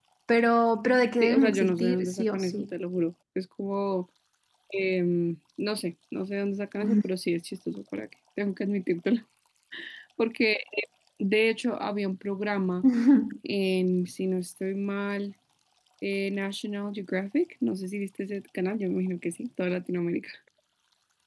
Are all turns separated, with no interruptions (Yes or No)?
No